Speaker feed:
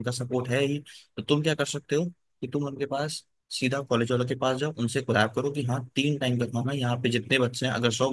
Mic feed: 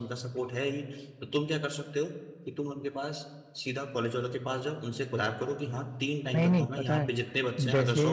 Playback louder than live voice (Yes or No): No